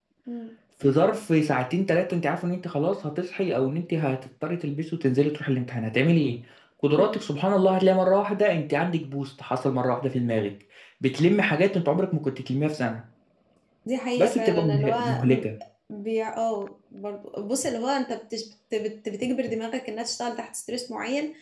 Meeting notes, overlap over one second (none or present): present